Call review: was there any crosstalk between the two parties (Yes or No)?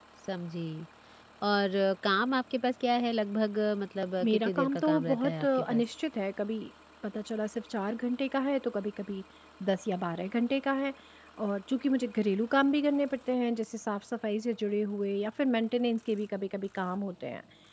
Yes